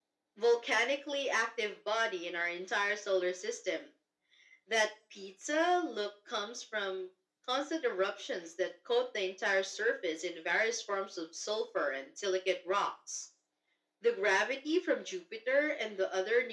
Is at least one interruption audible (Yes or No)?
No